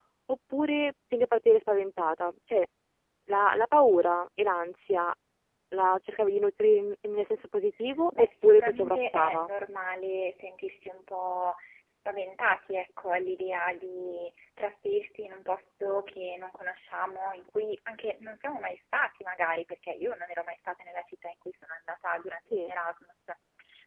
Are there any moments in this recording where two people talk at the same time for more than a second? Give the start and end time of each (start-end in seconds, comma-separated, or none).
8.2-9.5